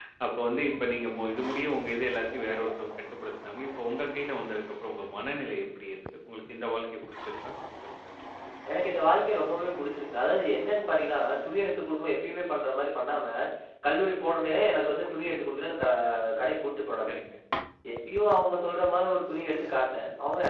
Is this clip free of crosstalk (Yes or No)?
Yes